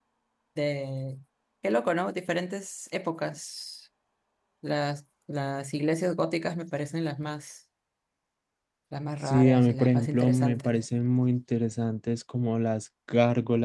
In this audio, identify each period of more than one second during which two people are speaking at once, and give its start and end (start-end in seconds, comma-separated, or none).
9.2-10.8